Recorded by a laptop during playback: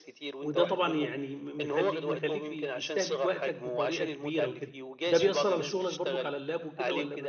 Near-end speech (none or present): present